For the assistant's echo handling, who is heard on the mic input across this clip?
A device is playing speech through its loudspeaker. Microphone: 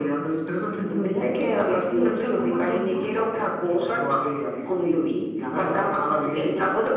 echo only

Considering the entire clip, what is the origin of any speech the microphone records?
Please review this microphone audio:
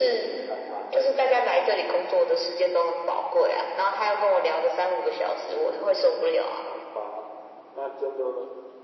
echo only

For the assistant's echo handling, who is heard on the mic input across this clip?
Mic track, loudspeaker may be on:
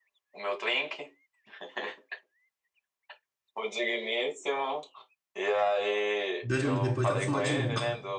both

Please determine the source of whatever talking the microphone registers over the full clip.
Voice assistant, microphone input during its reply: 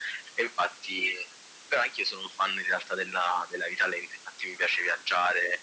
echo only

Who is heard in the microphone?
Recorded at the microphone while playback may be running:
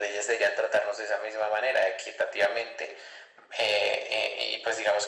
echo only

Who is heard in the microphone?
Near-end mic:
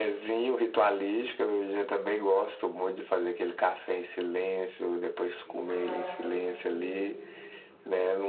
both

